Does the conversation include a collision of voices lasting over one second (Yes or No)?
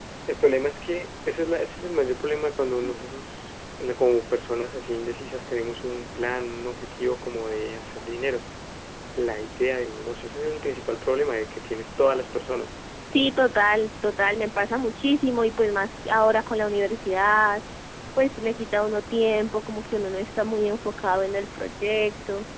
No